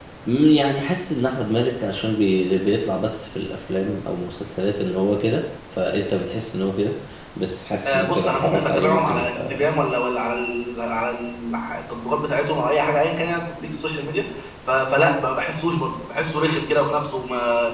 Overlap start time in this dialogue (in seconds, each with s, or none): 7.8 s